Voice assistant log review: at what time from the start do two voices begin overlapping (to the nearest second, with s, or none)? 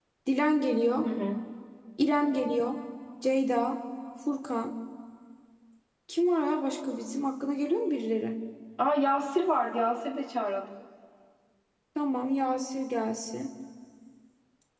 none